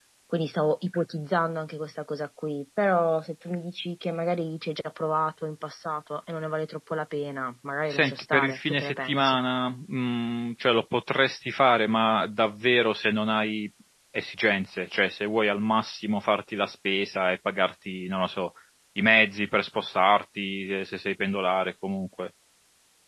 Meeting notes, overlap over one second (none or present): present